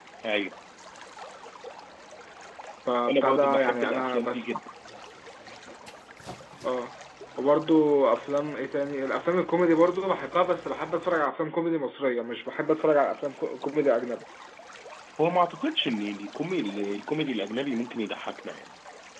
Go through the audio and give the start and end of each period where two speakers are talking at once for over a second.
3.1-4.5

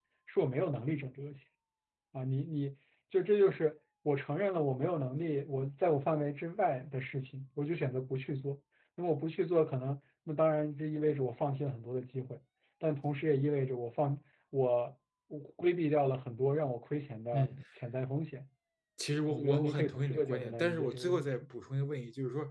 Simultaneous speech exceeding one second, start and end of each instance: 19.3-21.3

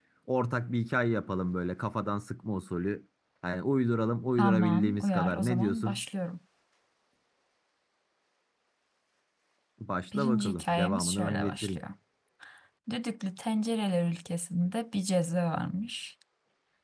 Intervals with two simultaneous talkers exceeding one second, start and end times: 4.4-6.0, 10.1-11.8

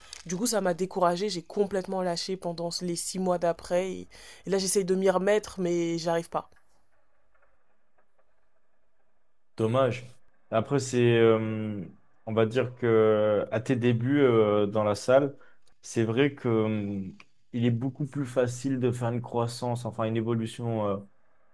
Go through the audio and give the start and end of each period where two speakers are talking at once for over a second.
none

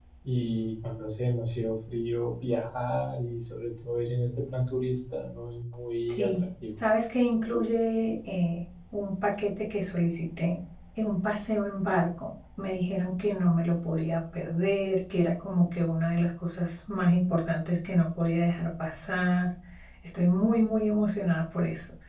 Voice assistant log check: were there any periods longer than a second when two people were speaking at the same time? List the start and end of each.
none

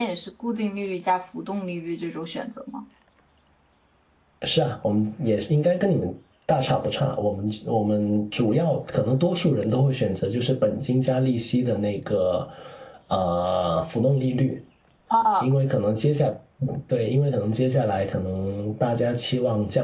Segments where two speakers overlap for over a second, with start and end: none

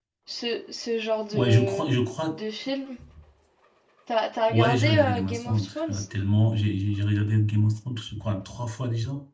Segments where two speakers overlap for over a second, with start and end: 4.5-6.0

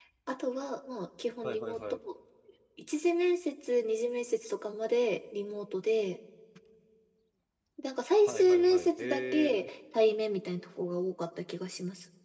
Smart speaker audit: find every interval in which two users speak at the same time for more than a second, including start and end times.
8.3-9.6

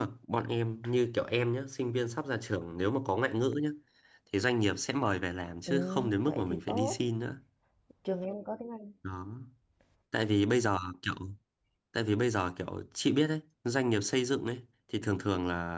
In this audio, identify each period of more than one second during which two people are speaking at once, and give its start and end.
5.7-7.0

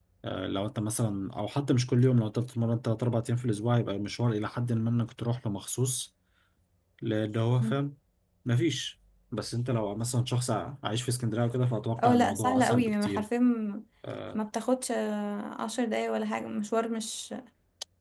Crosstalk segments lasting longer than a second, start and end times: 12.0-13.2

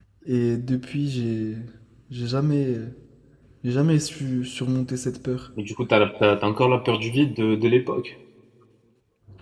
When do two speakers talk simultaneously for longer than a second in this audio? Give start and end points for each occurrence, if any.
none

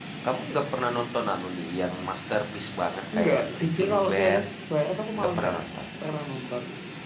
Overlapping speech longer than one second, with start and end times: 3.1-4.4

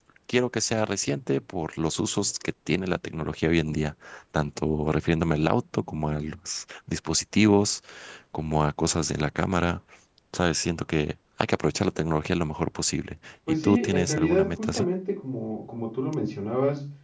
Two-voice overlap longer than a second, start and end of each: 13.6-14.9

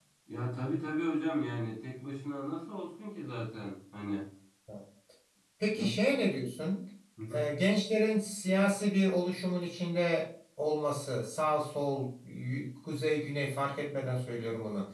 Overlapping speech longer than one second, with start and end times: none

